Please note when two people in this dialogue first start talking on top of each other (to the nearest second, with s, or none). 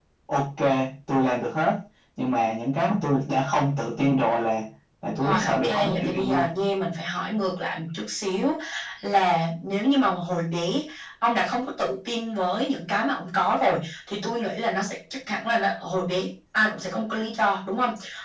5 s